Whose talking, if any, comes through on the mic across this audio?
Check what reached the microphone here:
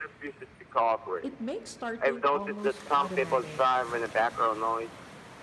both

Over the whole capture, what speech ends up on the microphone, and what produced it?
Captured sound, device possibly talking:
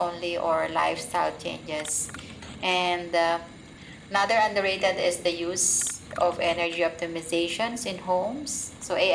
echo only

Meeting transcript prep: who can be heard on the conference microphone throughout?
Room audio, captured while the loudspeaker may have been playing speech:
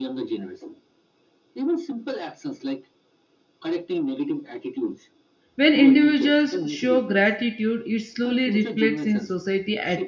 both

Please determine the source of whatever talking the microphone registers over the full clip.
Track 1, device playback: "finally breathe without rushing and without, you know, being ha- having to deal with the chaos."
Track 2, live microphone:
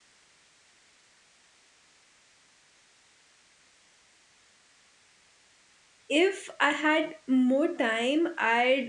user only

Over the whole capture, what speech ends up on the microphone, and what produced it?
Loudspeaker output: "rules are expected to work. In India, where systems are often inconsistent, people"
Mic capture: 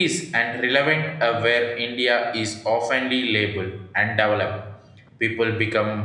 user only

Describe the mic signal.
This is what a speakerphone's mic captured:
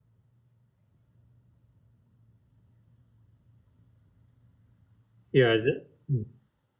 user only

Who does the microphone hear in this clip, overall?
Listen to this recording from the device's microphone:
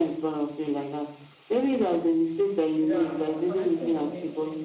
both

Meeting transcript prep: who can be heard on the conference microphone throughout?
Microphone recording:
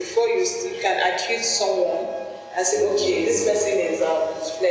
both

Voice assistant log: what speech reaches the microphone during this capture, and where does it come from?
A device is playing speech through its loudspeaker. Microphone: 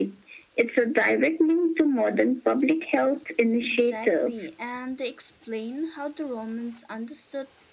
both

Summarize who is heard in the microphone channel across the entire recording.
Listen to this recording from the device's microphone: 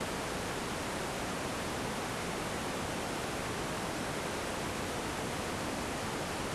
neither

